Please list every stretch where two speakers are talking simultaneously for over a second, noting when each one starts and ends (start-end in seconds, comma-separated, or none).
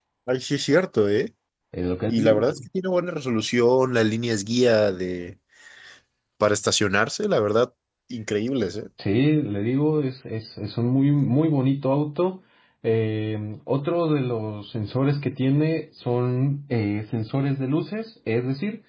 none